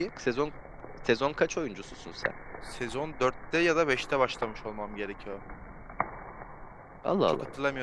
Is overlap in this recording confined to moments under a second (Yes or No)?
Yes